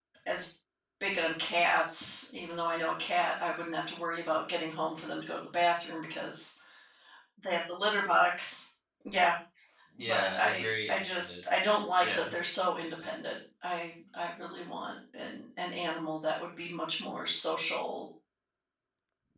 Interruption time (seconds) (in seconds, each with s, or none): 10.0 s